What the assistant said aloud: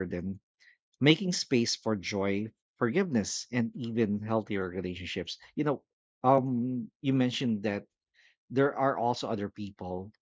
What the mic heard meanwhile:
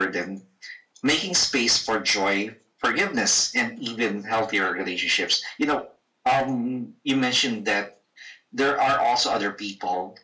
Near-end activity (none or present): none